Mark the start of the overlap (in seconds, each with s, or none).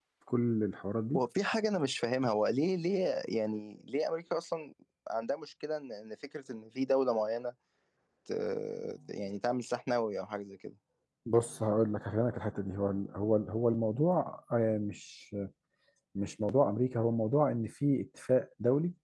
none